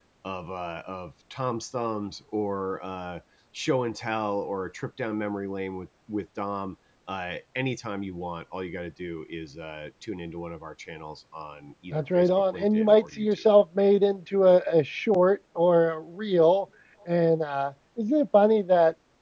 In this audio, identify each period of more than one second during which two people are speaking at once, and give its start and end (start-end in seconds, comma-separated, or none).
11.9-13.4